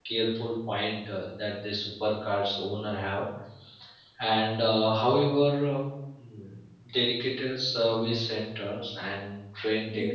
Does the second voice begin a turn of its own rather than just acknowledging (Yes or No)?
Yes